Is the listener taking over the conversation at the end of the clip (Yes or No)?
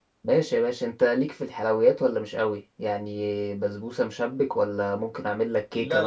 Yes